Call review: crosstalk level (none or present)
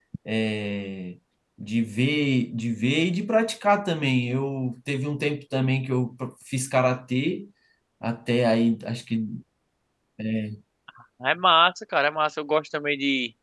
none